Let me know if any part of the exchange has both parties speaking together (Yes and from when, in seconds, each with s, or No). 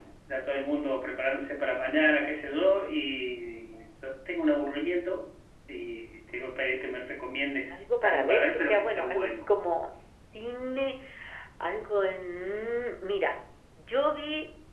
Yes, from 7.7 s